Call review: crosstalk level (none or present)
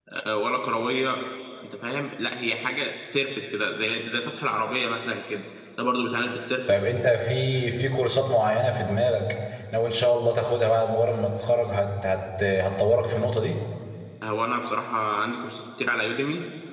none